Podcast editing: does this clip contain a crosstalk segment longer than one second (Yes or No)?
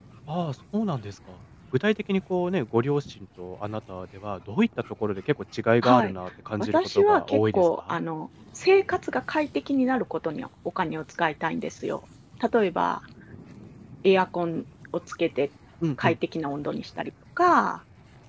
Yes